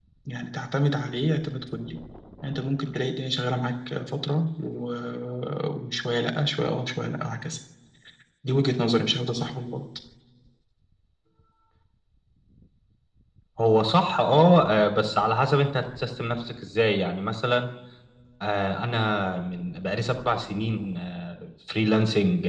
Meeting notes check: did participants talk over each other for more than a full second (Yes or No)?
No